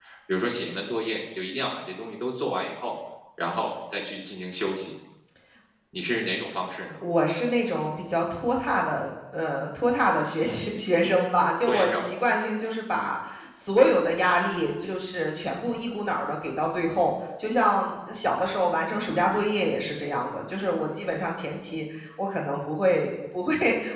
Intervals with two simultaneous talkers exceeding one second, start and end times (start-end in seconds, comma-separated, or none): none